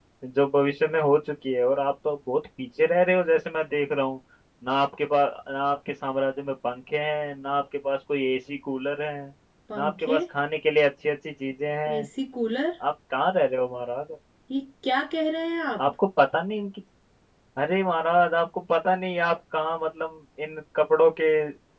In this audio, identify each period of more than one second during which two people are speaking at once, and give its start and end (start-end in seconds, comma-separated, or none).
none